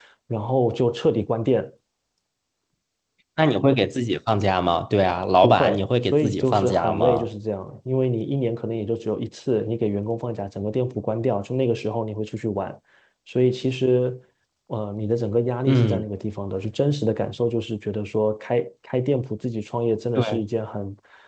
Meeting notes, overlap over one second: present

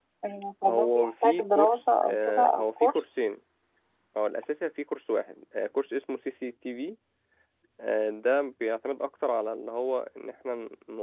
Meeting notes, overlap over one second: present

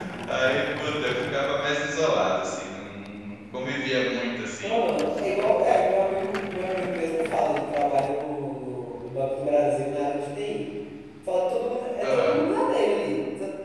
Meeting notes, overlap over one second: none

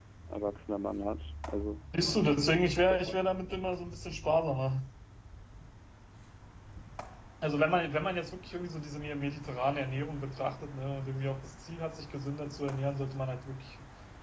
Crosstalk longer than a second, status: none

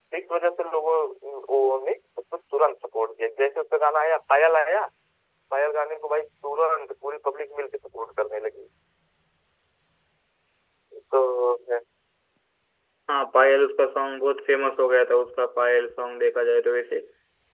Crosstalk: none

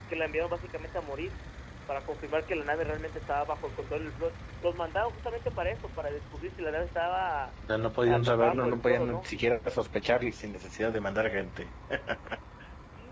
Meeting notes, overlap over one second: present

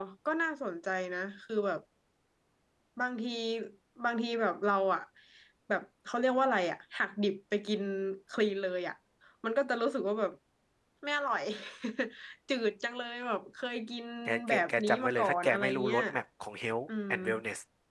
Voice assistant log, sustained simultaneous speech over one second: present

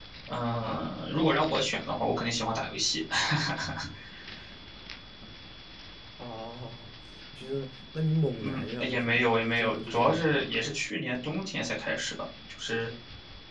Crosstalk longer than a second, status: present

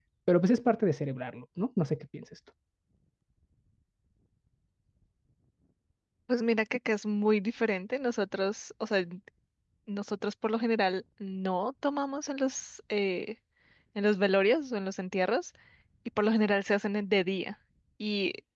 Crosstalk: none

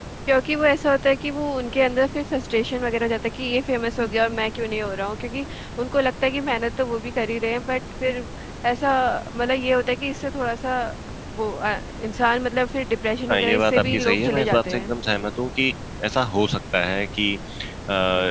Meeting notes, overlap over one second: present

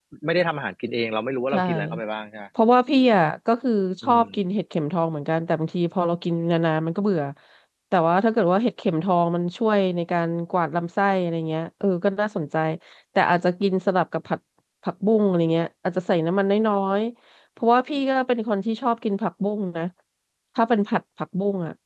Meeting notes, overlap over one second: none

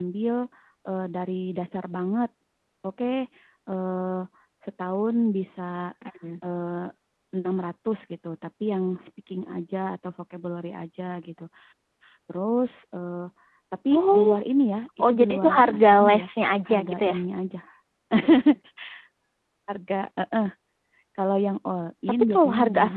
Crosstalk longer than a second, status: present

